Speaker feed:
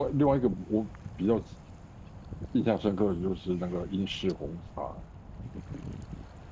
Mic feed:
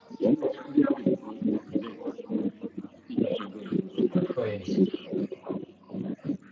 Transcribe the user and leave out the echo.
对

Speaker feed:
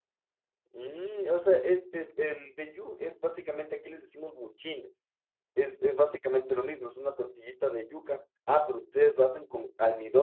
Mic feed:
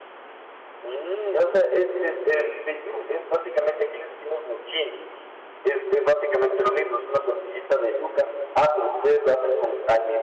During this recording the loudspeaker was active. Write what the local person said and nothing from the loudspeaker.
none

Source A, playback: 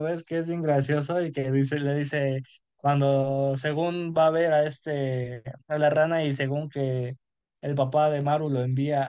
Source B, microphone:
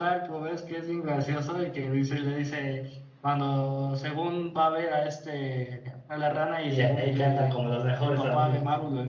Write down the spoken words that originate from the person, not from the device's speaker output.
y ahí cantan como los mejores amigos.

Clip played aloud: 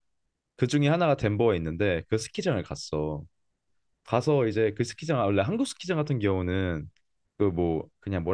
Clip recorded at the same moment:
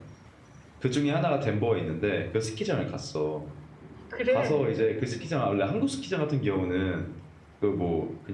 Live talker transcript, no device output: 그래.

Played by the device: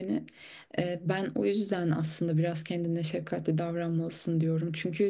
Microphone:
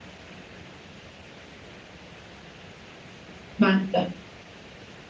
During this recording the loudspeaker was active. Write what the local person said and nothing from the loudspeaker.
ben de.

